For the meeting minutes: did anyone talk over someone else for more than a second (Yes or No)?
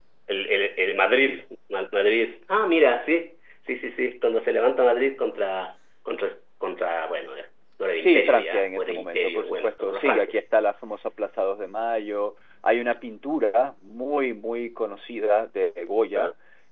Yes